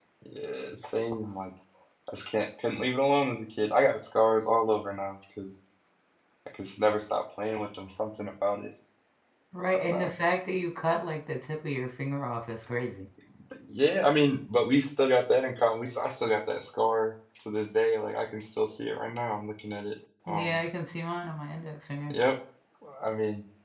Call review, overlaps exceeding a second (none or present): none